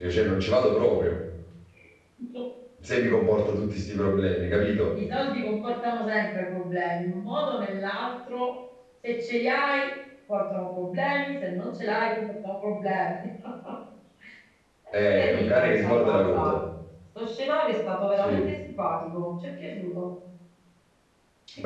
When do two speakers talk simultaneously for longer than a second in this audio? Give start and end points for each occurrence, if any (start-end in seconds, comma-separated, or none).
14.9-16.6